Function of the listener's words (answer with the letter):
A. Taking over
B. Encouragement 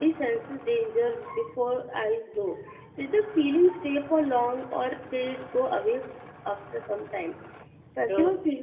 B